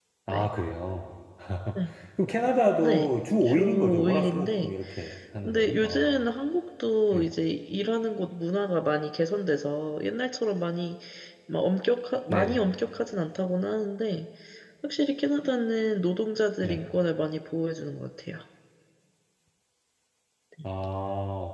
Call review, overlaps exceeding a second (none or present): present